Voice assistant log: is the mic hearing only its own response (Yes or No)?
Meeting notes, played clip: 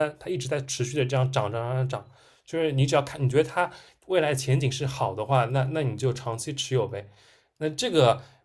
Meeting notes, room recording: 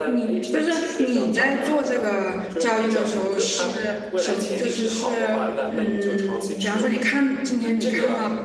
No